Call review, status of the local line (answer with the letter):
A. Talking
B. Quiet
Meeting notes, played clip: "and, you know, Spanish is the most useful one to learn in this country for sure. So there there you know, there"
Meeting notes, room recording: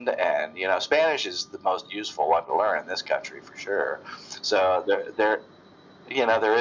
B